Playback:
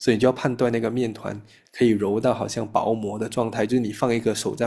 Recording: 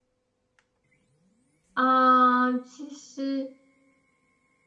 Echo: none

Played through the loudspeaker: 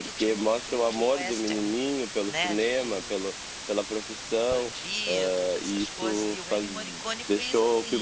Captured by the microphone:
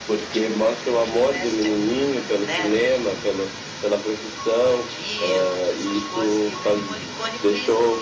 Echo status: present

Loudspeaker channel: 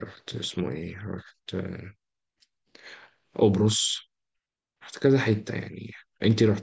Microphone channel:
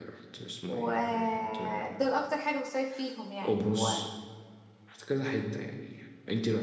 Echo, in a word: present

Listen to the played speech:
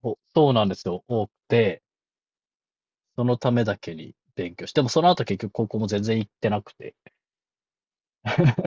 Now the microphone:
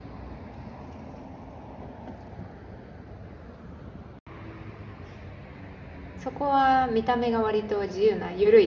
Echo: none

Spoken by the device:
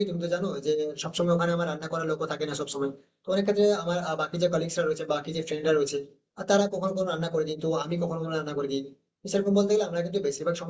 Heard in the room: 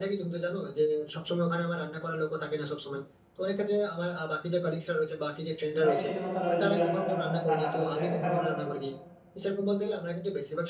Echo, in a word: present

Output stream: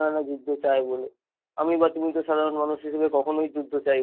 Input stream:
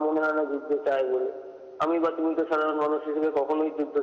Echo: present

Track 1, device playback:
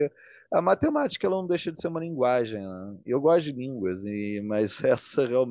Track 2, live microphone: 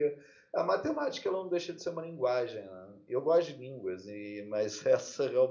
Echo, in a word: present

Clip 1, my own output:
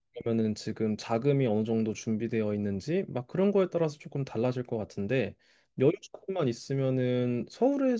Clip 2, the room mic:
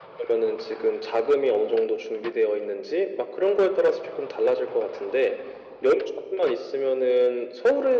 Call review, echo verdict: present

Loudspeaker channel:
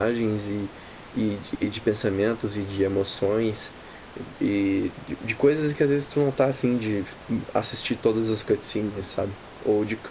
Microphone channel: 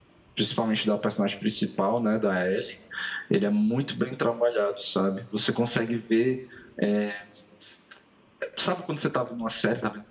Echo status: none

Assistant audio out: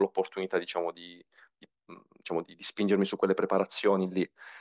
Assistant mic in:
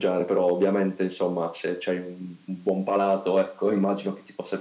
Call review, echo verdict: none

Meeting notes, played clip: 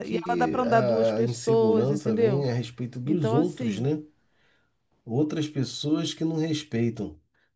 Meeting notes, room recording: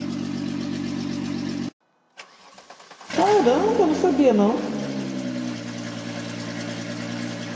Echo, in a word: none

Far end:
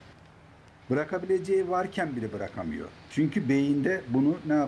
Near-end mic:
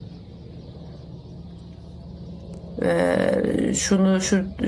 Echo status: none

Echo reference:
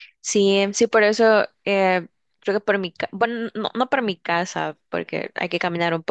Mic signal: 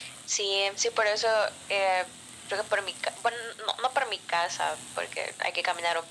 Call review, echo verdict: present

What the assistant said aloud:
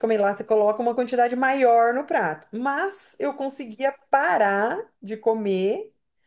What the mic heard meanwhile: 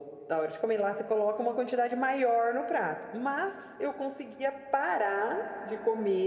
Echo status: present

